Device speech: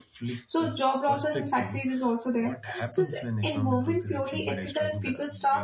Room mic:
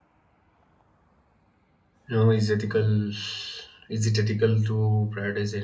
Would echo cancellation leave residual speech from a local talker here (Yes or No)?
Yes